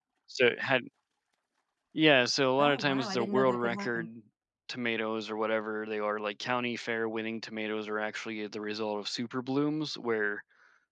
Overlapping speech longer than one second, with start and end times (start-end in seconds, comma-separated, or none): 2.6-4.0